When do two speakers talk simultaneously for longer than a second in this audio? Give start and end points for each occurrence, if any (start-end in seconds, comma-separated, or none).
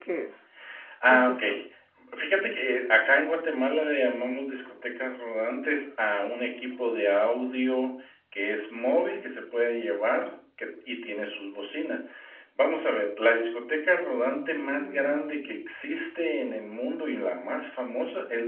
14.3-15.5